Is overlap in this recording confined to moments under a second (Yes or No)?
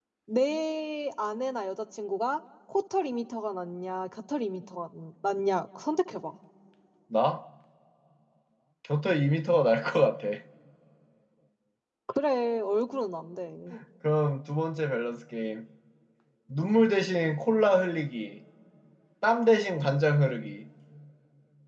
Yes